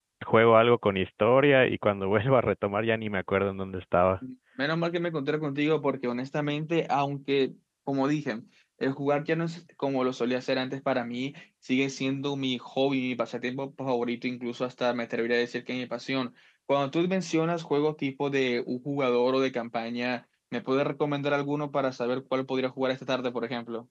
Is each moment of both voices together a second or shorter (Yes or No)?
Yes